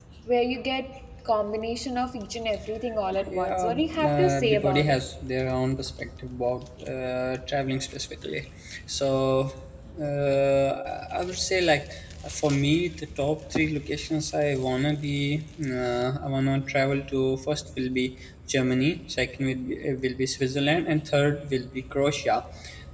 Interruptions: present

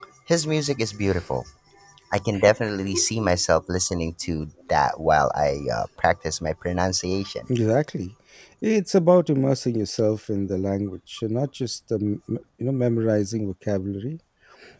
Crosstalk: none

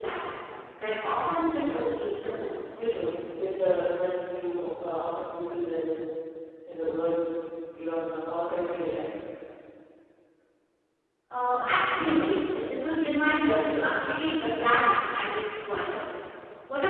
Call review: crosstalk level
none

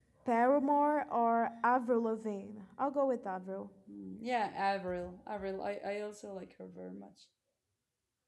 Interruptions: none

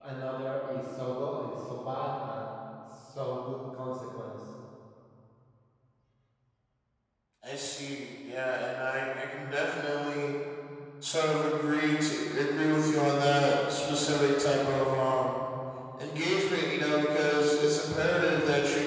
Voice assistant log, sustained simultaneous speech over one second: none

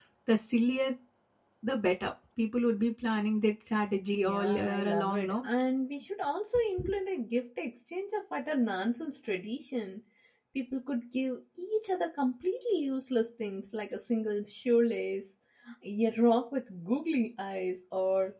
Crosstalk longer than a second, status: present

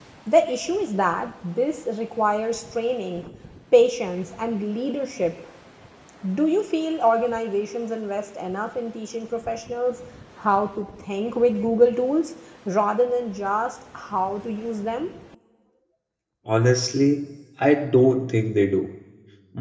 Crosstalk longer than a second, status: none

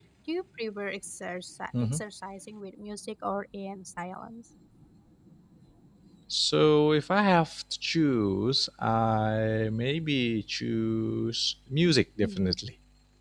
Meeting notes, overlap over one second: none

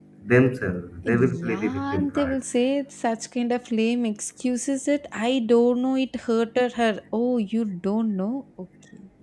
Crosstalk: present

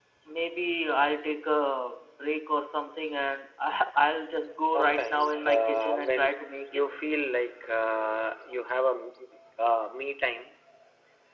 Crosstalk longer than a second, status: present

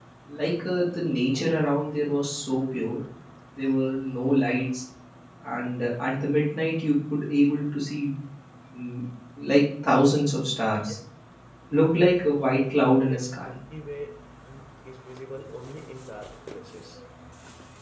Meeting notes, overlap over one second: none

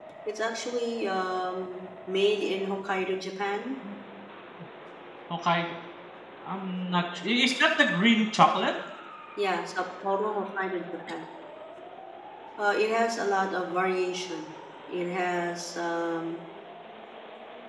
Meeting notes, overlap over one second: none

